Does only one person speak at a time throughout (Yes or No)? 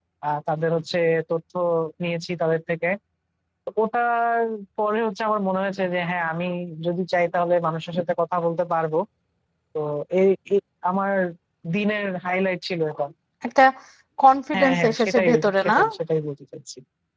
No